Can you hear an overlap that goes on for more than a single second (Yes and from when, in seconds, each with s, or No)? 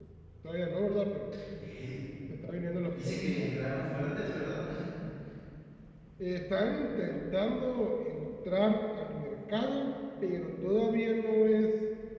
No